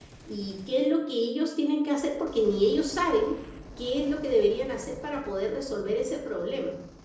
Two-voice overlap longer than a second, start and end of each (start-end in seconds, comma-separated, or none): none